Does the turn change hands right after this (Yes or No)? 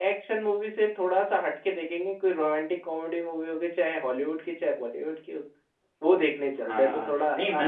Yes